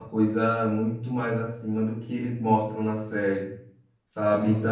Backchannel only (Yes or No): Yes